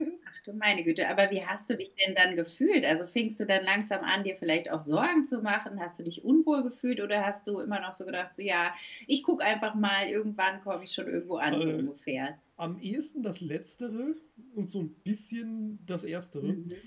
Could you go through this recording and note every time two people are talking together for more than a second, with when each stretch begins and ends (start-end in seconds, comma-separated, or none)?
none